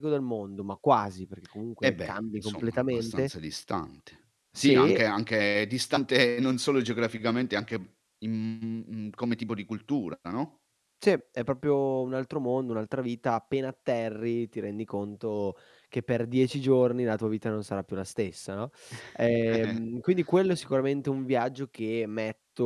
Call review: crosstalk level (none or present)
present